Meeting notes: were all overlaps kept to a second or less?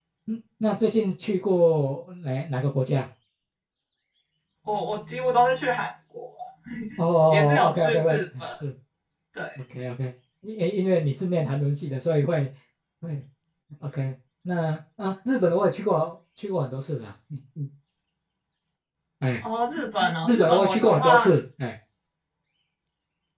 No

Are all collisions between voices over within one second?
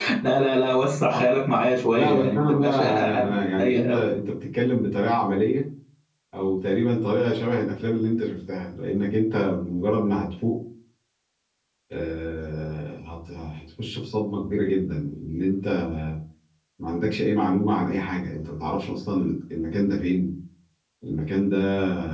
No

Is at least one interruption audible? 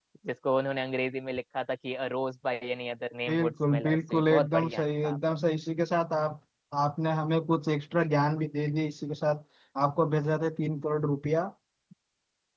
Yes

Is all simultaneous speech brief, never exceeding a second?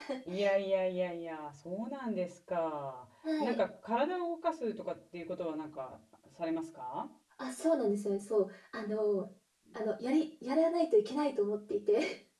Yes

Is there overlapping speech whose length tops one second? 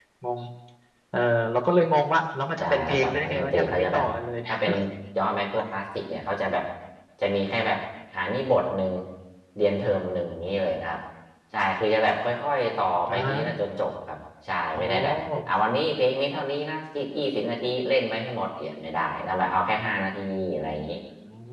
Yes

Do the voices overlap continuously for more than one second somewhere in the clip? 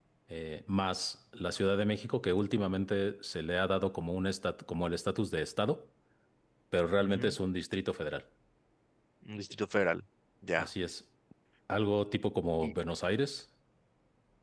No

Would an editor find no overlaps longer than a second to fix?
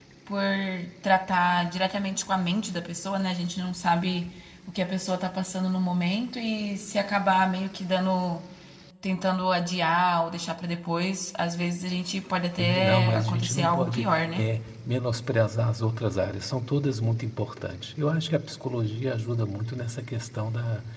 No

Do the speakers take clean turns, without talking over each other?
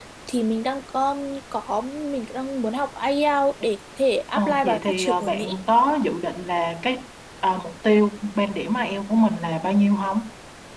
No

